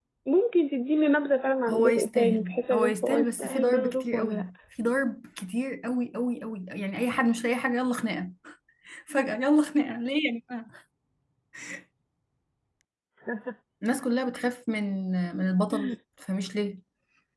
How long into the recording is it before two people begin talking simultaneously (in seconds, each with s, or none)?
1.7 s